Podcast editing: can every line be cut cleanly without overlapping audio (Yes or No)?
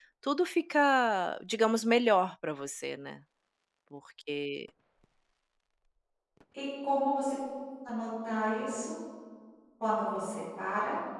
Yes